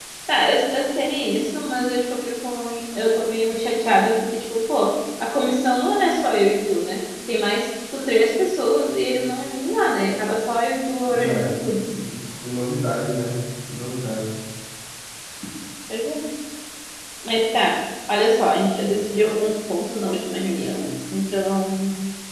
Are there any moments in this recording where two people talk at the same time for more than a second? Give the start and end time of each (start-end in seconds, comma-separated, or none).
none